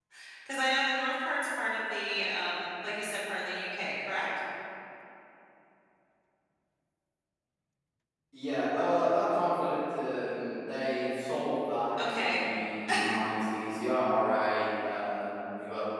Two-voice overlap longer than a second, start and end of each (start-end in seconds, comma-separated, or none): none